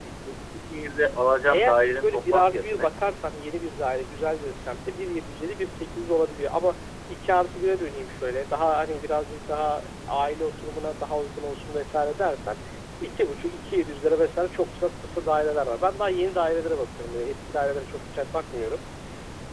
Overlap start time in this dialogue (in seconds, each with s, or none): 1.5 s